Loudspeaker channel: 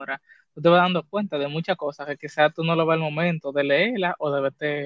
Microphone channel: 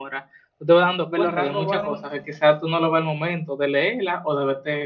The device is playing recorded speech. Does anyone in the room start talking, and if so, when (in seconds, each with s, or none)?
1.0 s